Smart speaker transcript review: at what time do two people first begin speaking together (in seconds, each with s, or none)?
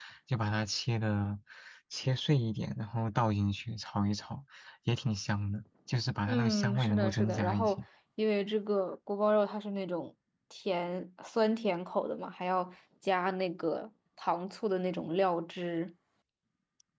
6.3 s